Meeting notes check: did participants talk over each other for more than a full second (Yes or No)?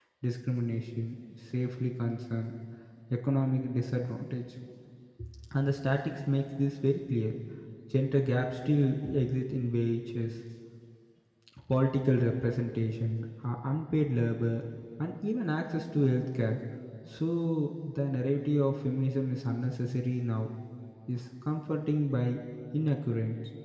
No